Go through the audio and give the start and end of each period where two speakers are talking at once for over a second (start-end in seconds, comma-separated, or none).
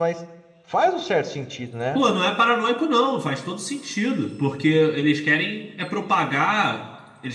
none